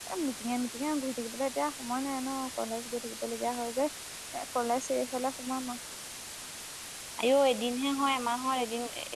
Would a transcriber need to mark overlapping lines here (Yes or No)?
No